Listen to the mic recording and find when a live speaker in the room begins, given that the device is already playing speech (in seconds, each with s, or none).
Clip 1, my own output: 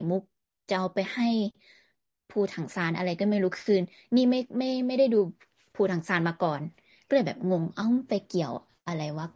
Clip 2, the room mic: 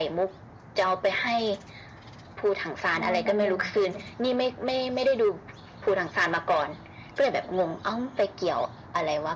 2.8 s